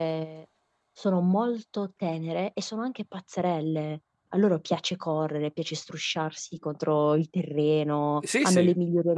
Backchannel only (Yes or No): Yes